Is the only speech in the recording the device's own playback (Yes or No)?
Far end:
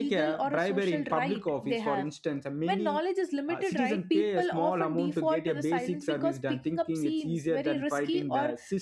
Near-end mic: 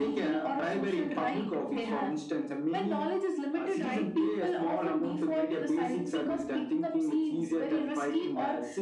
Yes